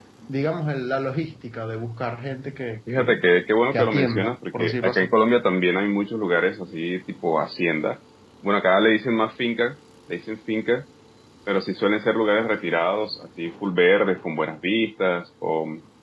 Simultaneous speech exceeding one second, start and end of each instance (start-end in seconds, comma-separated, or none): 3.7-5.1